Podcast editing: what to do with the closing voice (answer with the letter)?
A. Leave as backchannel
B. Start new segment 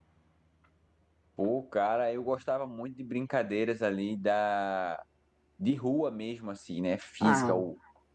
A